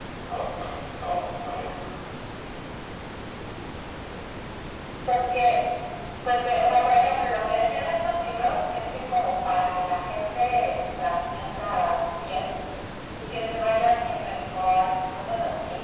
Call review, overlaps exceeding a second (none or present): none